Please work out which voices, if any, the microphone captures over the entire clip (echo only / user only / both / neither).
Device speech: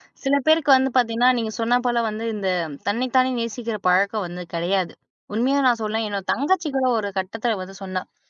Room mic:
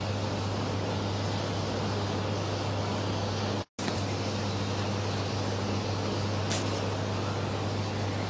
neither